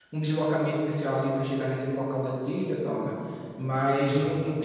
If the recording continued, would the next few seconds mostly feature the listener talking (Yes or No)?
No